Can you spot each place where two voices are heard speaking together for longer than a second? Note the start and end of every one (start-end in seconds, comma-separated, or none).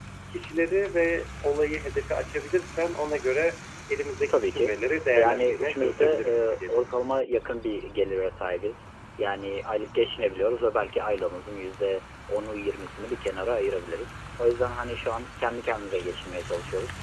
5.1-6.8